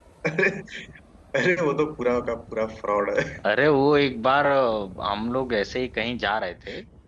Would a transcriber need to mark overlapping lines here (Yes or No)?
No